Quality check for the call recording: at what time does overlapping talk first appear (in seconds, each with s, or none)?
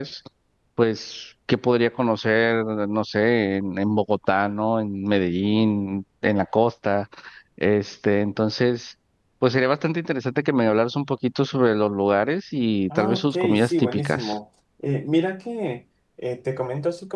12.9 s